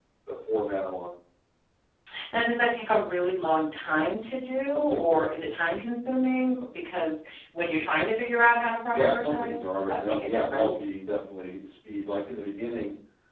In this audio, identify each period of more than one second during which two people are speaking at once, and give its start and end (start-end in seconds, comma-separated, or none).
8.9-10.8